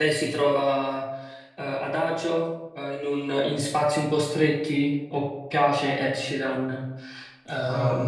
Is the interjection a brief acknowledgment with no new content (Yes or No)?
No